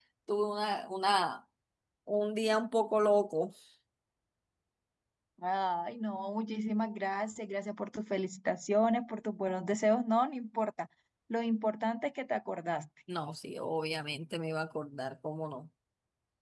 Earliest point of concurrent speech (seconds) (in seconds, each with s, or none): none